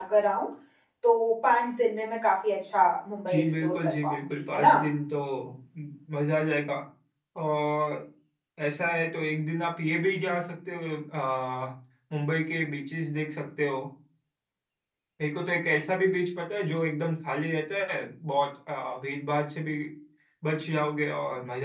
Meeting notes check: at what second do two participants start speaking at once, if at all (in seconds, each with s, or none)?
3.3 s